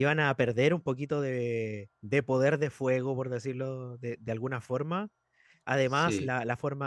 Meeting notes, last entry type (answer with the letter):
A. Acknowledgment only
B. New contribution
A